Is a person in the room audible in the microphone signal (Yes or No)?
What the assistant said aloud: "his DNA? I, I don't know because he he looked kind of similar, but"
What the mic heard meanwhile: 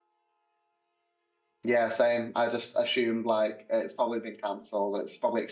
Yes